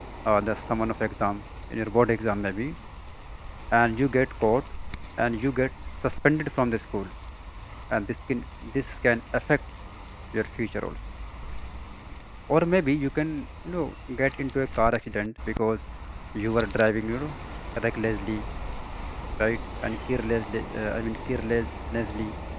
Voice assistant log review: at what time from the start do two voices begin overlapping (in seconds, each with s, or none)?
none